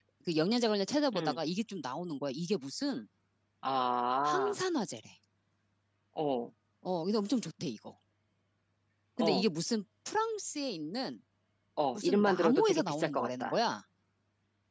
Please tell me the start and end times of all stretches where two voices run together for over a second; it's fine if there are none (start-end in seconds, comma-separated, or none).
12.0-13.6